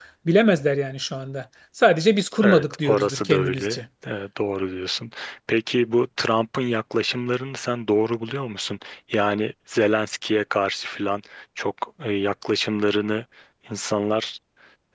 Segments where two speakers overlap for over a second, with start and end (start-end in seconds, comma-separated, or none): 2.4-3.8